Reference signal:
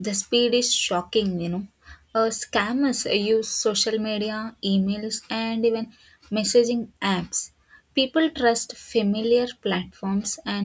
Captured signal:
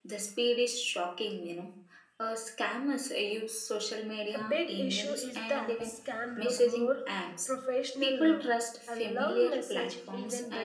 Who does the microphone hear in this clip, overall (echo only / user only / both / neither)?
both